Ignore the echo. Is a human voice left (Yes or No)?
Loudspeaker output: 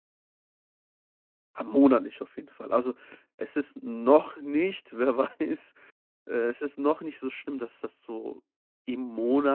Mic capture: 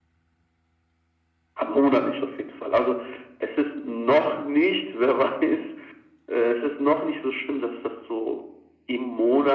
No